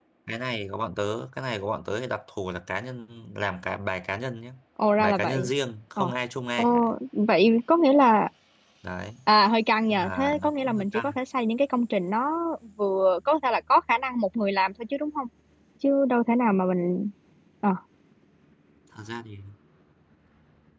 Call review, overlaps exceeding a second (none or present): present